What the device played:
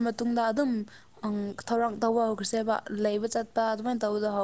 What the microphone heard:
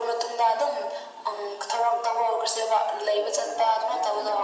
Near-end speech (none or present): present